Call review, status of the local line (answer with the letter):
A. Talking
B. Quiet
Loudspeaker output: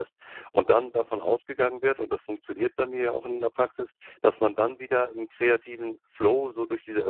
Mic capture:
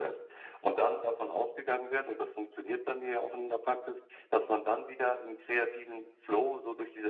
B